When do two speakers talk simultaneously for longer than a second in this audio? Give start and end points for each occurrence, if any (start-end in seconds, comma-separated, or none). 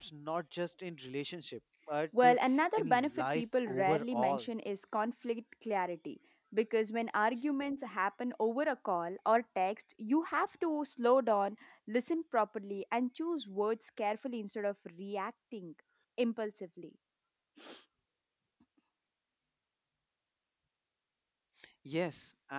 2.8-4.5